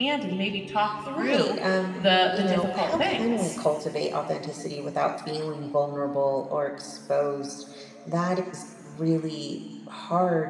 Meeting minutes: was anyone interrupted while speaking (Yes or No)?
Yes